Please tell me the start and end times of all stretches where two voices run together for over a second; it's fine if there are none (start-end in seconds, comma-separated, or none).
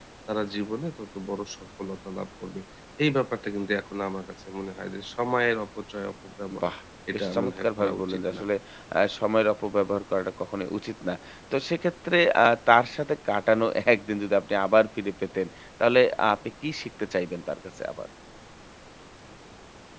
7.1-8.4